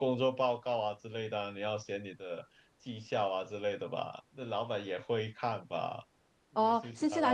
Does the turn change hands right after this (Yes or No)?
Yes